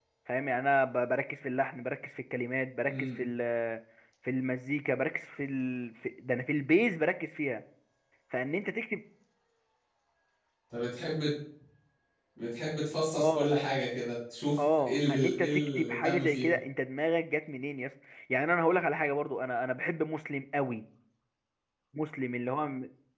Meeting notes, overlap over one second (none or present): present